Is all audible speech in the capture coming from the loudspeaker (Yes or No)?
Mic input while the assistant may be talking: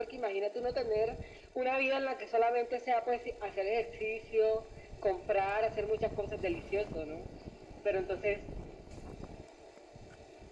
Yes